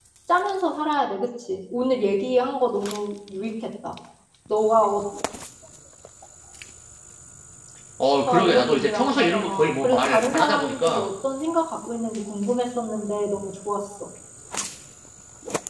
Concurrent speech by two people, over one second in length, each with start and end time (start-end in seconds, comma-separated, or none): 8.5-11.1